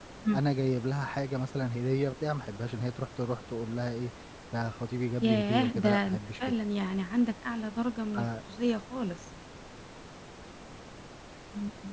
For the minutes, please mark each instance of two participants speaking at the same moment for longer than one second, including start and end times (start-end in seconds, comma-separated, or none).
5.2-6.5